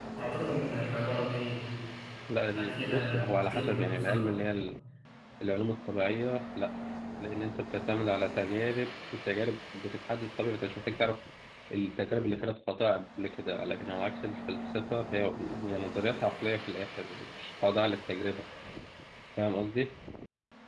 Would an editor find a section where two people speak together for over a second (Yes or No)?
Yes